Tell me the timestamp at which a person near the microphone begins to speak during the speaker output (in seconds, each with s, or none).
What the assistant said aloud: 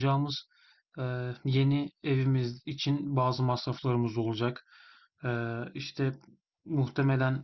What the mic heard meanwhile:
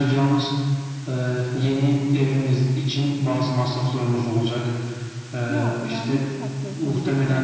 5.5 s